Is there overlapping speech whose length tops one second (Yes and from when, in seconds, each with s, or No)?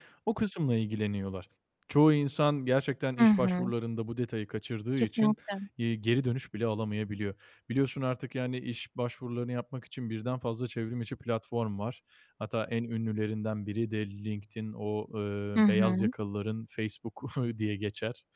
No